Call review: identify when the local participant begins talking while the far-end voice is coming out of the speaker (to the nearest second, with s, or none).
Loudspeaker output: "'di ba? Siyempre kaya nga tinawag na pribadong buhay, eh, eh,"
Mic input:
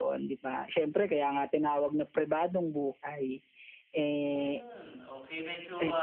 4 s